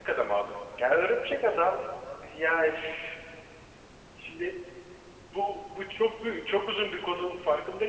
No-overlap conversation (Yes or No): Yes